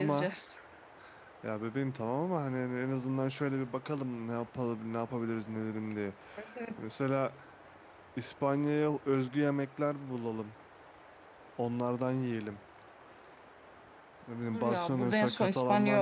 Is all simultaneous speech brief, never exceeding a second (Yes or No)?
No